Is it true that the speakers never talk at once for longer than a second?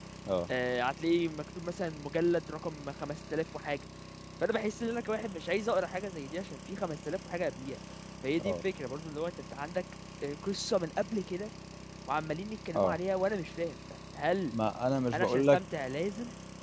Yes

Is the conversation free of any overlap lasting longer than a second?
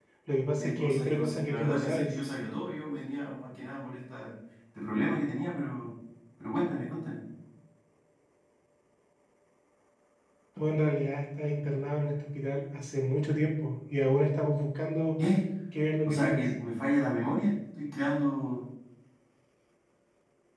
No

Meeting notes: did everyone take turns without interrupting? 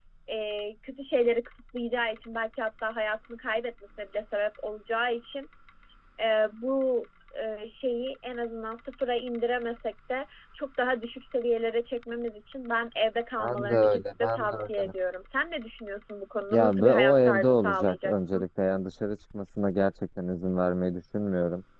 No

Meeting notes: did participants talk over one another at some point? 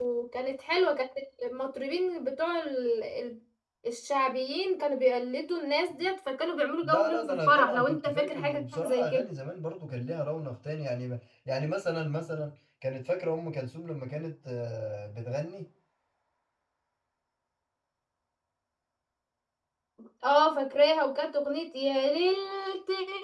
Yes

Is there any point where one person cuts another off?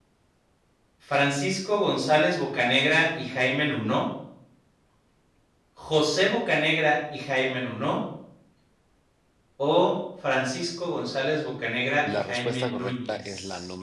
Yes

